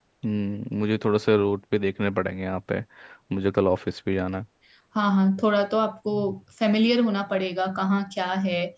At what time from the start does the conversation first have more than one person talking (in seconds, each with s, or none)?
none